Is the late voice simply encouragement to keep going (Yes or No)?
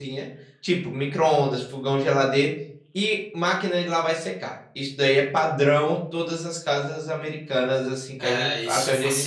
No